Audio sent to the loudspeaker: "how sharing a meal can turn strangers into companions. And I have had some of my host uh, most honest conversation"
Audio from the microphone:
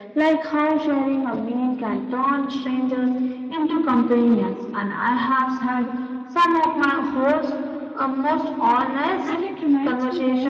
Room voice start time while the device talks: 9.2 s

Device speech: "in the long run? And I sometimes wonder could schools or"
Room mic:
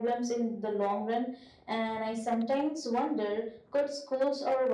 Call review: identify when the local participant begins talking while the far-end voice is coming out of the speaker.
none

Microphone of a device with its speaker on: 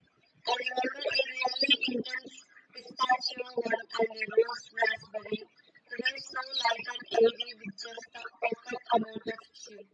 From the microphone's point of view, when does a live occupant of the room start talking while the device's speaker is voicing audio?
none

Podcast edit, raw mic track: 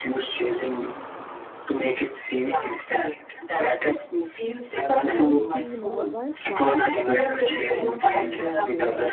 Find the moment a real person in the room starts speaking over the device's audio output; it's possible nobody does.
5.1 s

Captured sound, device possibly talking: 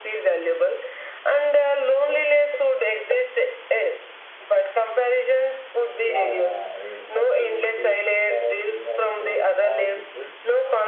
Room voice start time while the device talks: 6.1 s

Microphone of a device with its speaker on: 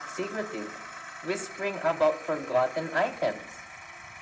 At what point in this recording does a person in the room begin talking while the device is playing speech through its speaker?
none

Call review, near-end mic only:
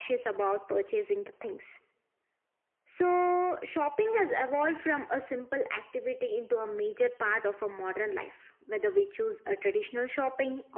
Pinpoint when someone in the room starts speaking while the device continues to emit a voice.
none

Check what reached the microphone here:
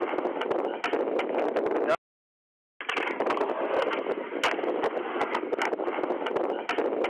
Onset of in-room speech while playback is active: none

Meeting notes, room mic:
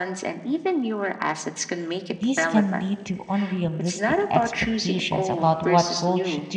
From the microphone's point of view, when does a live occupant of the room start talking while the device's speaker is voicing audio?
2.1 s

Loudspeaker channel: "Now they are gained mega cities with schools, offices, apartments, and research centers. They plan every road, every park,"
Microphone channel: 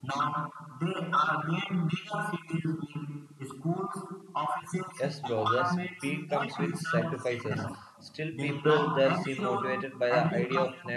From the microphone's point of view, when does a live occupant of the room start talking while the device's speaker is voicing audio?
5.0 s

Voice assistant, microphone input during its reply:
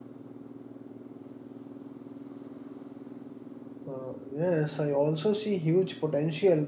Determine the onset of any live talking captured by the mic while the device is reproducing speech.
3.9 s

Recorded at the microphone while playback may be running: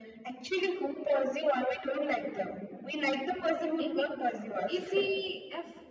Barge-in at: 3.8 s

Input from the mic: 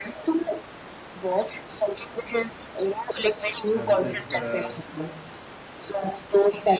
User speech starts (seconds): 3.7 s

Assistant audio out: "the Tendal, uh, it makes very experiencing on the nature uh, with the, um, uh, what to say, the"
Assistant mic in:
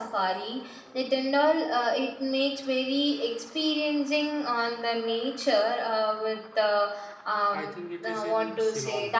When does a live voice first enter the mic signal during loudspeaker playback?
7.5 s

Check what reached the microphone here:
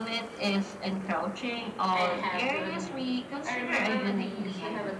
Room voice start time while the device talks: 1.9 s

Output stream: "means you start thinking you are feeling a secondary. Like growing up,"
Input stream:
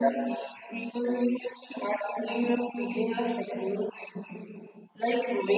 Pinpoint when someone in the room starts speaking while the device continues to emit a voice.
none

